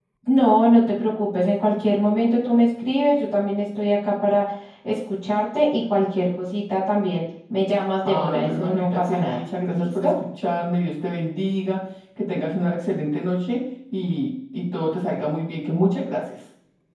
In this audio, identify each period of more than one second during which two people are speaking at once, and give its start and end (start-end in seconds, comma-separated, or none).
8.0-10.1